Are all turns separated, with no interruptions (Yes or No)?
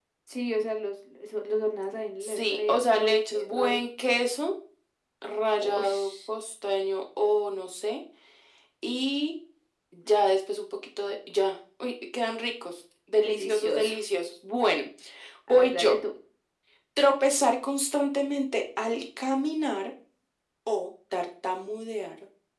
No